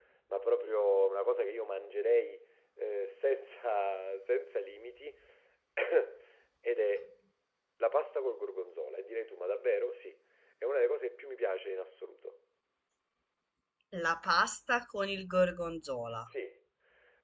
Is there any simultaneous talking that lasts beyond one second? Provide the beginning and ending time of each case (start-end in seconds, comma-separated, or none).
none